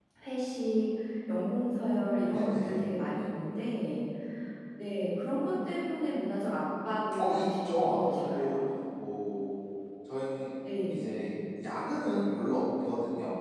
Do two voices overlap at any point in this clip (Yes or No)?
Yes